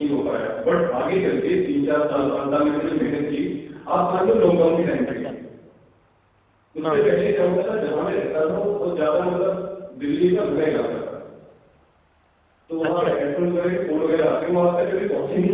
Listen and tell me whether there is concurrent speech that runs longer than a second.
No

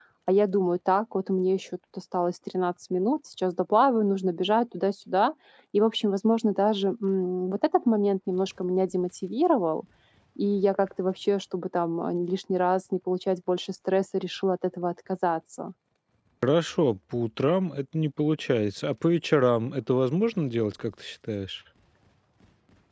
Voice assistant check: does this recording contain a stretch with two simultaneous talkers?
No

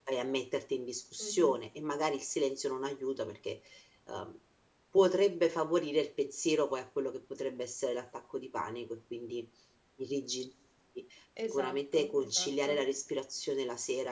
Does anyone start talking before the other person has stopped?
Yes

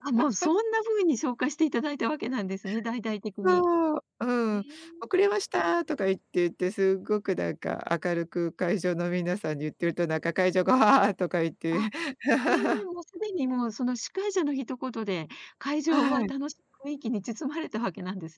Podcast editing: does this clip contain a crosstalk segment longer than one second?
No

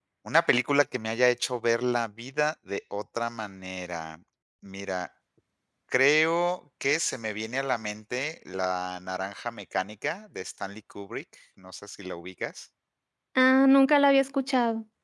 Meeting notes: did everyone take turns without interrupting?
Yes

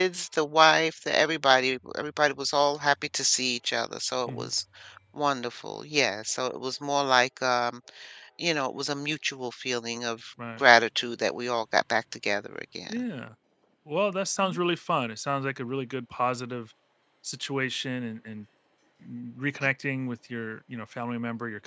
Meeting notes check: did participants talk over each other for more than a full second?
No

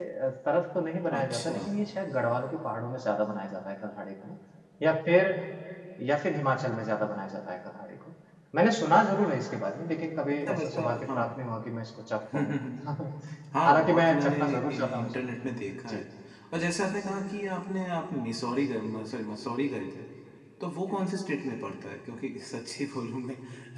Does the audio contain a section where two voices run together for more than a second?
Yes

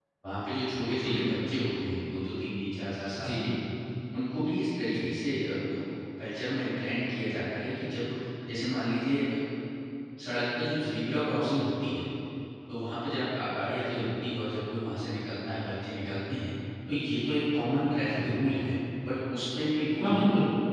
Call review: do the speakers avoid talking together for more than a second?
Yes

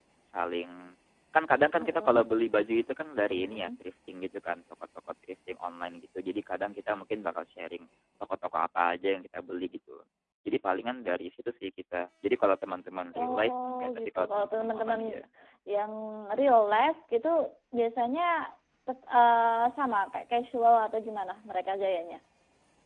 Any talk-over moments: Yes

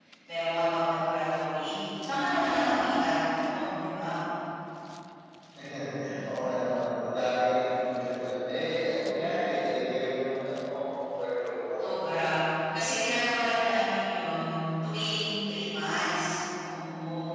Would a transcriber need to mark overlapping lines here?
No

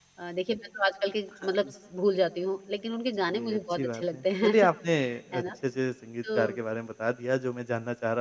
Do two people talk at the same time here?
Yes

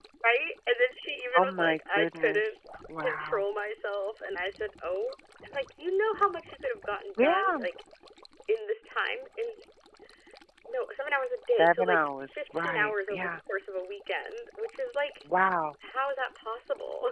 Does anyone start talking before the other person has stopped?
Yes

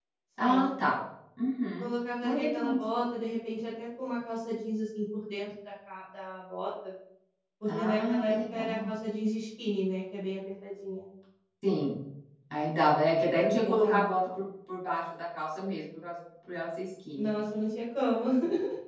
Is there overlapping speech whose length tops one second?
Yes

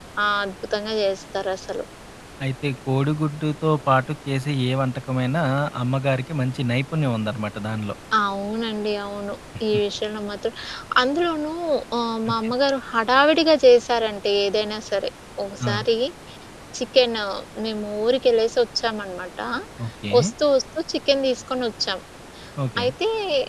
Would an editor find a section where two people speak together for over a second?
No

